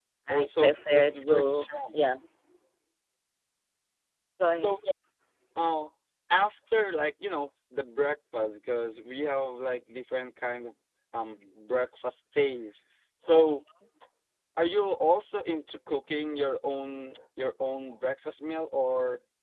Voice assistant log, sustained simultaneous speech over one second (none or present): present